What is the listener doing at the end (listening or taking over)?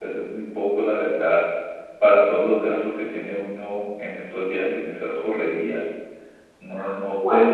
listening